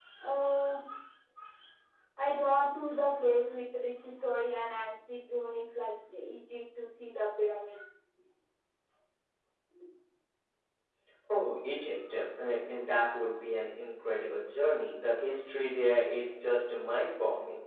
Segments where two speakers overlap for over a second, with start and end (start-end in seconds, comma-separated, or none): none